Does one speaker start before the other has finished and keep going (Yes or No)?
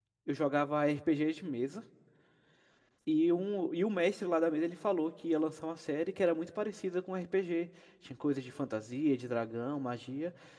No